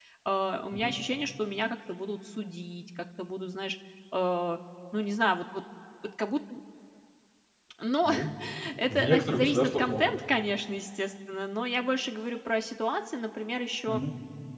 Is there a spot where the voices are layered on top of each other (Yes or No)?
Yes